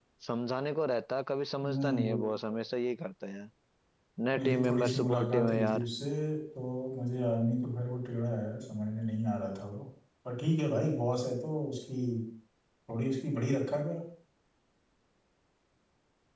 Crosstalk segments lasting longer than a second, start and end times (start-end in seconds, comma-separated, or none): 4.3-5.8